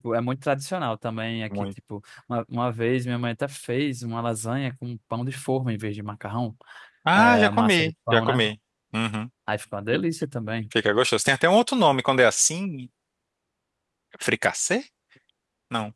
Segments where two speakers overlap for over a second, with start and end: 7.2-8.4

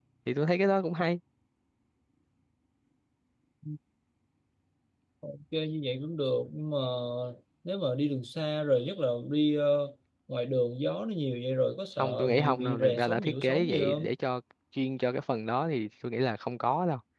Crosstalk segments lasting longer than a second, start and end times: 12.0-14.1

